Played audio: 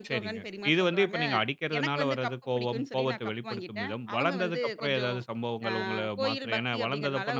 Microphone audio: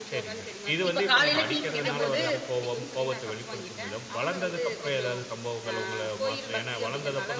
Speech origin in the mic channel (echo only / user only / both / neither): both